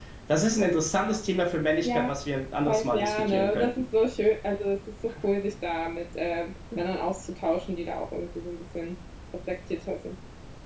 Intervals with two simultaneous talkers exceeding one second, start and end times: 2.7-3.9

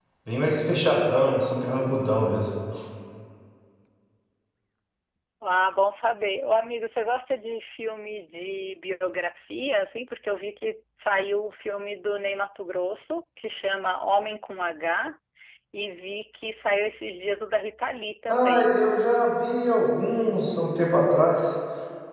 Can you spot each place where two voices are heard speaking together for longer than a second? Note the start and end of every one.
none

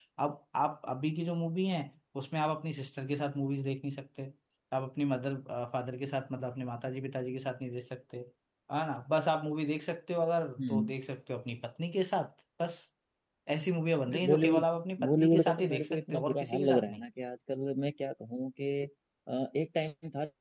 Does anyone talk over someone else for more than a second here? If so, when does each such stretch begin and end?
15.0-17.0

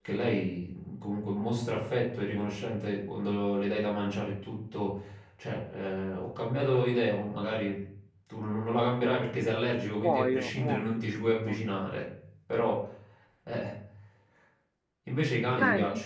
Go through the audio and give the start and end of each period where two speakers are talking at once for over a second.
10.0-11.7

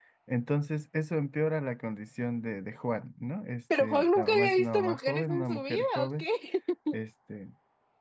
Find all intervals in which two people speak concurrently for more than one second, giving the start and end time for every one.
3.8-6.2

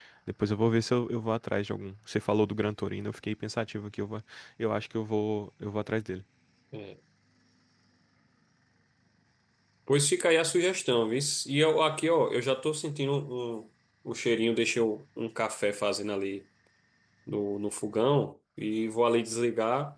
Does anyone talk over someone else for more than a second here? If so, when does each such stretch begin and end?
none

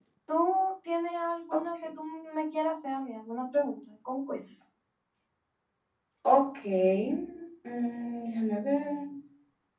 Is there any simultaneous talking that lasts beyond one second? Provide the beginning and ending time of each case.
none

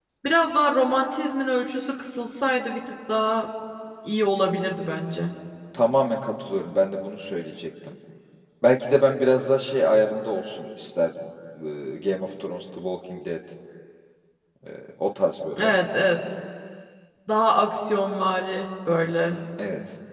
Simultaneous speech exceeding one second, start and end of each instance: none

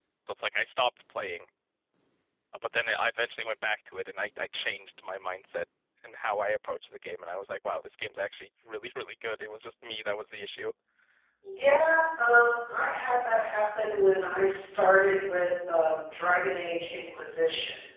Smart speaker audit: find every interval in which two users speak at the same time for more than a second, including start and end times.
none

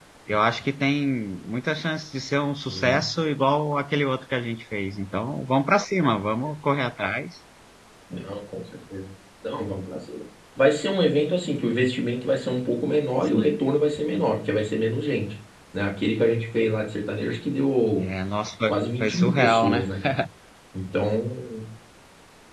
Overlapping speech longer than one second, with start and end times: 18.7-19.9

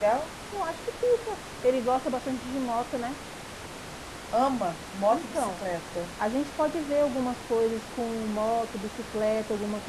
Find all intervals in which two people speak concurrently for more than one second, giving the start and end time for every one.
none

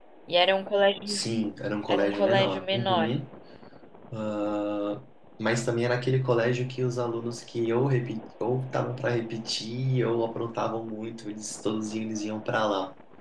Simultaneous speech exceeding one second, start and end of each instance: 1.9-3.1

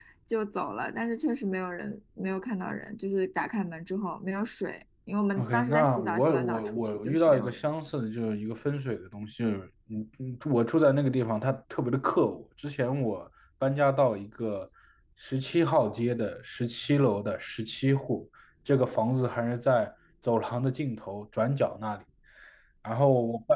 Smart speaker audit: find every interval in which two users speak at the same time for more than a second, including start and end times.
5.4-7.6

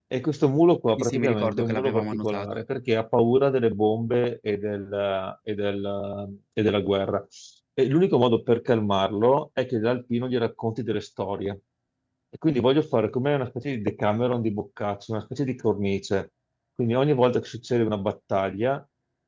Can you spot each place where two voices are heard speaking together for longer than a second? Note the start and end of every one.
1.0-2.6

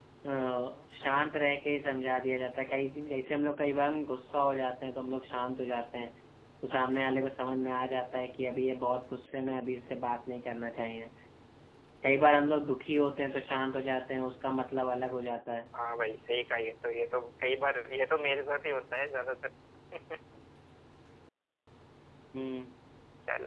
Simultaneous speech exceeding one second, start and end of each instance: none

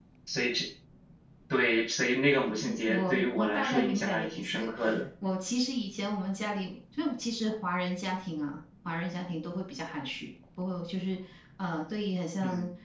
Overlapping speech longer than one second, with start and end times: 2.6-4.7

